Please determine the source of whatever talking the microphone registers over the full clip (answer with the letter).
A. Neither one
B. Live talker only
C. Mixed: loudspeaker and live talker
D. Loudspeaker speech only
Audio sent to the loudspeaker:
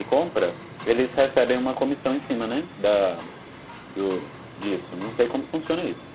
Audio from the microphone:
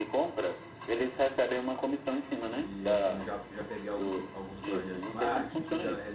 C